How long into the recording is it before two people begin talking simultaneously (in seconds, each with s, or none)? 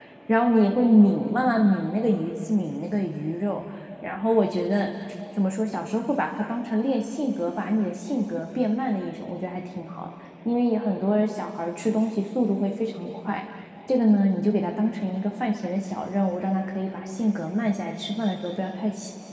none